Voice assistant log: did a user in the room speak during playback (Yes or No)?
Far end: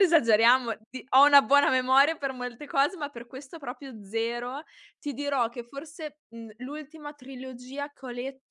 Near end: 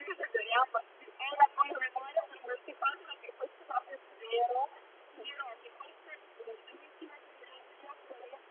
No